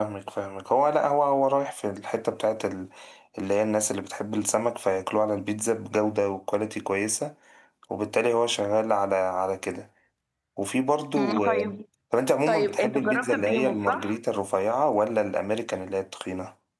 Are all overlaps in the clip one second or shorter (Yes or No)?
No